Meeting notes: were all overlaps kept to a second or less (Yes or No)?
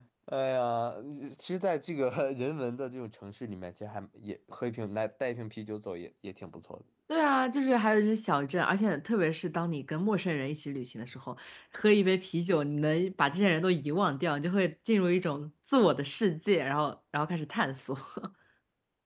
Yes